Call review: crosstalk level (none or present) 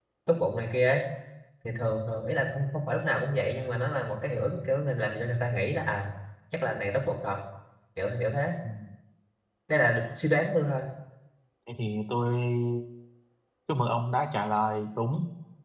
none